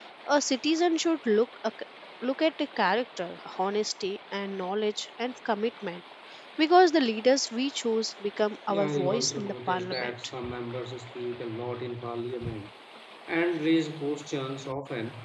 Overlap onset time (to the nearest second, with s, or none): 9 s